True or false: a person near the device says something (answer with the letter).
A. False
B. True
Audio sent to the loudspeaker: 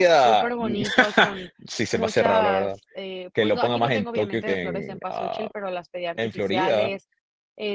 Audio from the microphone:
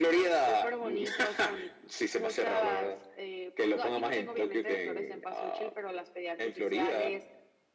A